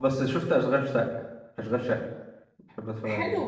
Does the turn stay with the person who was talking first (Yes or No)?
No